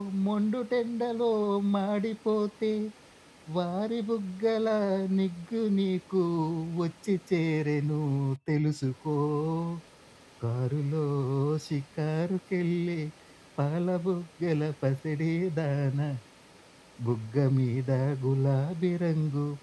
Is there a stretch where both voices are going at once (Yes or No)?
No